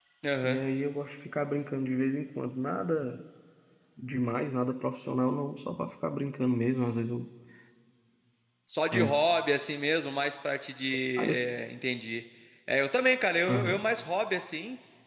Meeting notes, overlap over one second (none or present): none